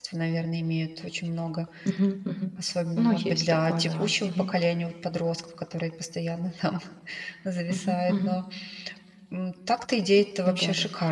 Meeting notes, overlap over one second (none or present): present